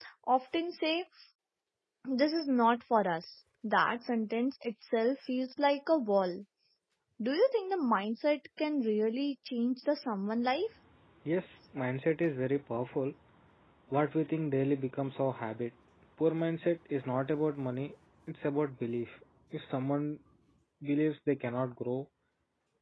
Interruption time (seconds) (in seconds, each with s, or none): none